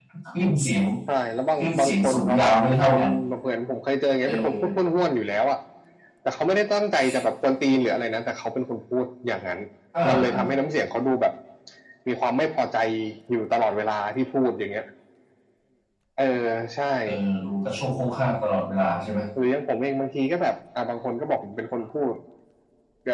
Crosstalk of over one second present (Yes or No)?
Yes